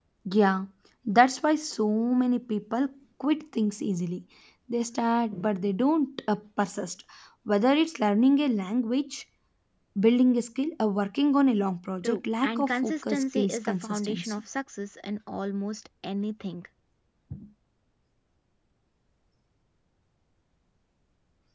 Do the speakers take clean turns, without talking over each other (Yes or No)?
No